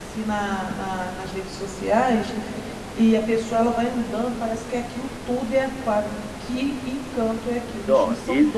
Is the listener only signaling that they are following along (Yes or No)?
No